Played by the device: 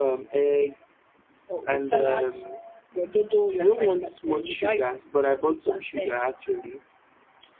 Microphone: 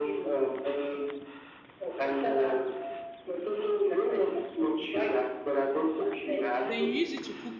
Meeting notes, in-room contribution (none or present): present